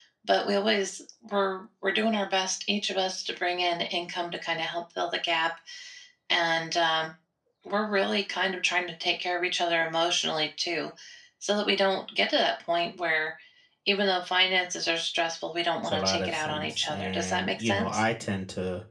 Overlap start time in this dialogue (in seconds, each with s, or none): 15.8 s